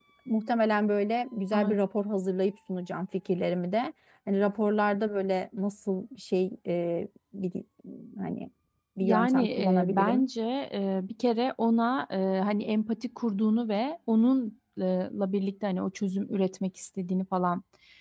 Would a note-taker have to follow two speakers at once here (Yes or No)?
Yes